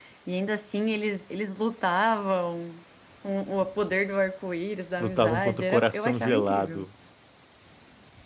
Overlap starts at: 5.0 s

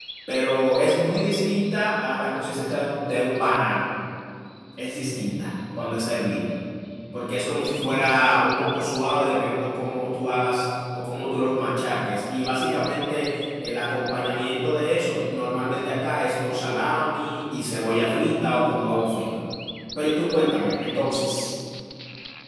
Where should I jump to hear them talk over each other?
none

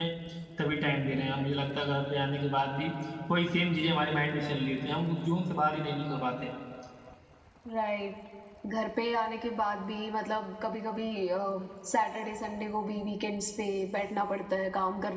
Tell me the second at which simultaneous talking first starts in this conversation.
none

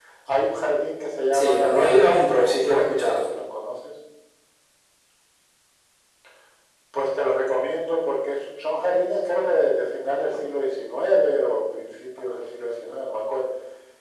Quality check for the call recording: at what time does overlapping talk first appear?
1.3 s

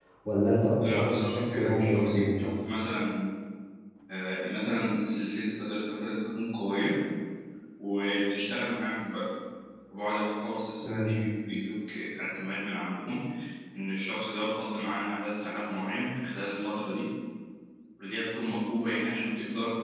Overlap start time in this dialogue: 0.8 s

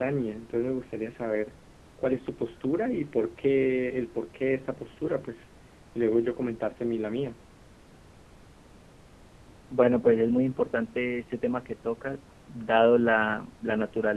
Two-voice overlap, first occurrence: none

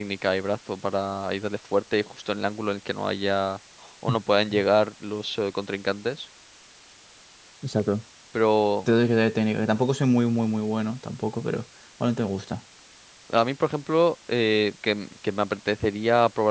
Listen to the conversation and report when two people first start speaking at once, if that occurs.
none

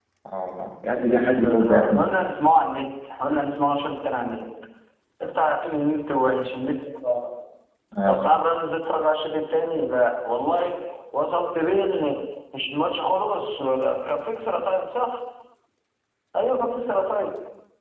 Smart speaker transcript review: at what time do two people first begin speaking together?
0.9 s

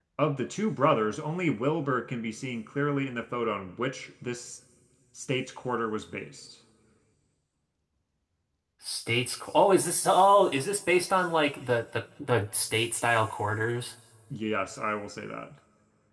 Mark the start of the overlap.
none

